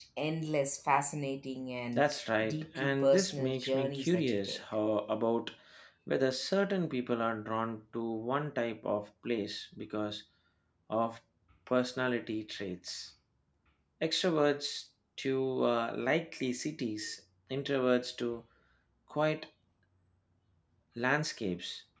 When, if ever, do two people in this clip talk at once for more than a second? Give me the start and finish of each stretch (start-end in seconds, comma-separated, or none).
2.4-4.6